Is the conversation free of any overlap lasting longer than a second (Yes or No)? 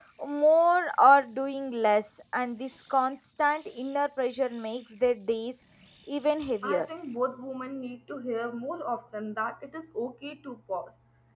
Yes